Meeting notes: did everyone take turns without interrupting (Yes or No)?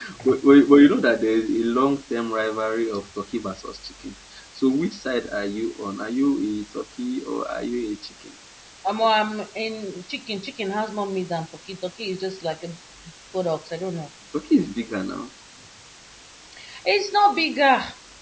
Yes